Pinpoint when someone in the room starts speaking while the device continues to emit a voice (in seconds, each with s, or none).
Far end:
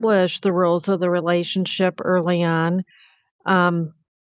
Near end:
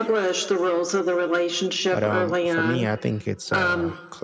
1.9 s